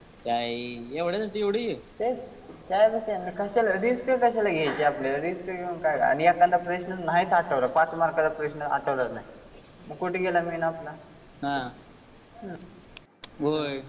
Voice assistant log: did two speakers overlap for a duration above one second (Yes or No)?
No